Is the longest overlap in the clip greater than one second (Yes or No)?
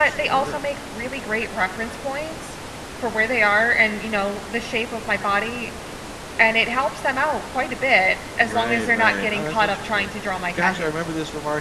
Yes